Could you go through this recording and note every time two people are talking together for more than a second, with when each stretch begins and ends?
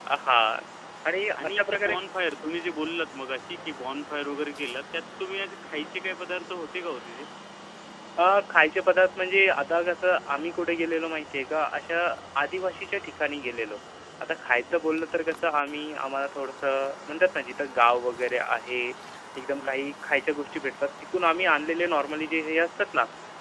none

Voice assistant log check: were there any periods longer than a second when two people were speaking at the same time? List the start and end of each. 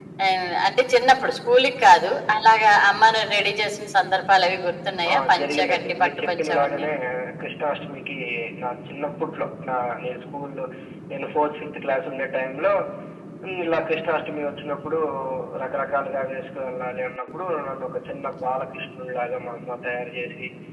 5.1-6.9

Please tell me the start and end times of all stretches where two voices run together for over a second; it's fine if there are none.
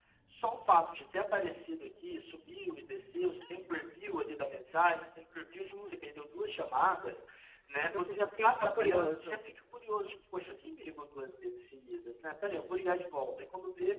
7.9-9.4

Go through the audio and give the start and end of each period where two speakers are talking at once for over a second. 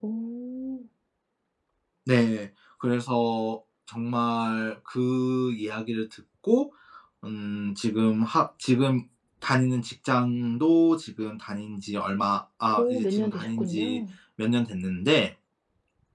12.8-14.0

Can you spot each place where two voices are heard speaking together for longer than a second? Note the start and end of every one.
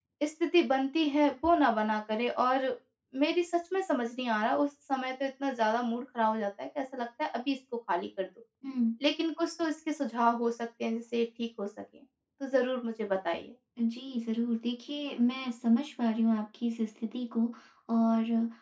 none

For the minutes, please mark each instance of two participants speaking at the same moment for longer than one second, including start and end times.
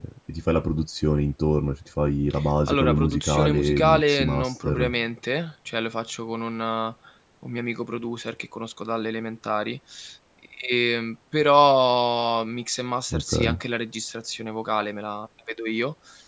2.7-4.9

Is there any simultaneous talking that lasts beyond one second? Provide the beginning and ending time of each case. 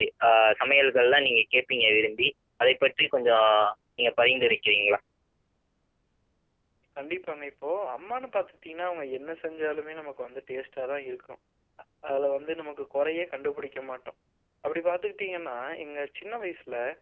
none

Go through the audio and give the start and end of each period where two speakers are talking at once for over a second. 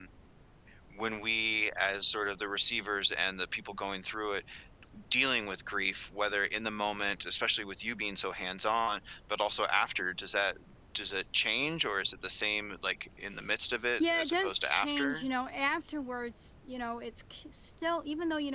14.0-15.3

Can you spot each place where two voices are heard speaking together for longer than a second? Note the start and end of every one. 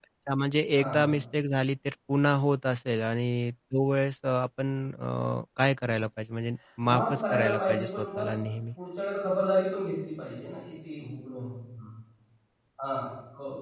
6.9-8.3

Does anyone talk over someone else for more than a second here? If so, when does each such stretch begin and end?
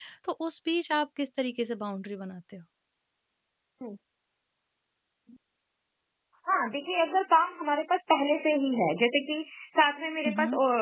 none

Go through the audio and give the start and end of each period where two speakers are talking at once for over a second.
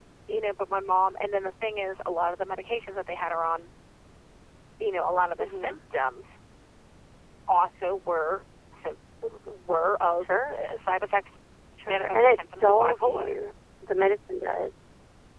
11.8-13.3

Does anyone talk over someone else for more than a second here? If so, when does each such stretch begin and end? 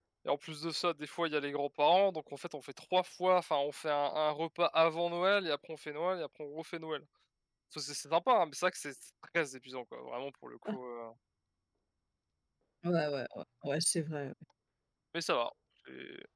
none

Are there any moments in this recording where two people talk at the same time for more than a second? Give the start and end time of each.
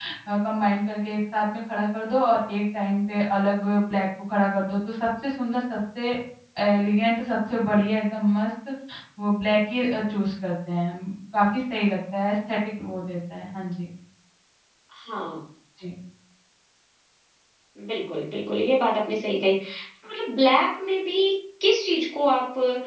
none

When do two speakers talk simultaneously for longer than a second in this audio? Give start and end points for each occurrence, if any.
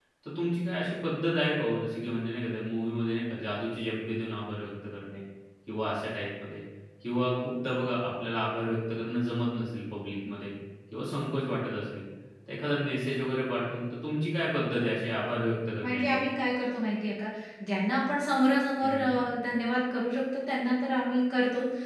none

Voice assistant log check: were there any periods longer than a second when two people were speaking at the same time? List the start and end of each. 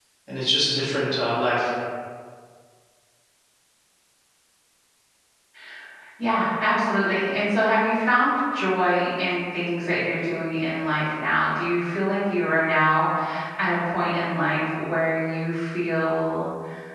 none

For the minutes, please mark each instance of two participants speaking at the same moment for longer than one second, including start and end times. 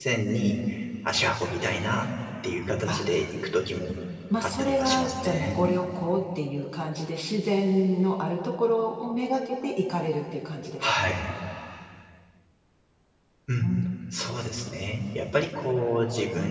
4.4-5.6

